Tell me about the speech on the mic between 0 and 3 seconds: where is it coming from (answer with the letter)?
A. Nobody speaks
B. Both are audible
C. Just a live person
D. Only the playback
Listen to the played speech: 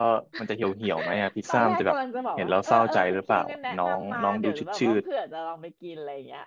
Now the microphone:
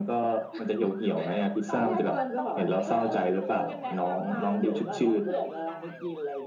B